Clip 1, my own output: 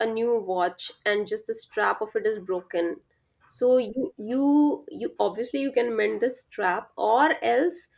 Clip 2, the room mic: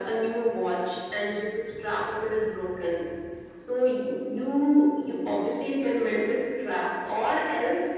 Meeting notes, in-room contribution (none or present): none